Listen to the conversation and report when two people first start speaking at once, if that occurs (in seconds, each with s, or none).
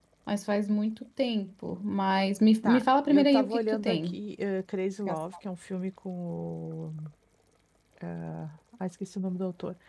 2.6 s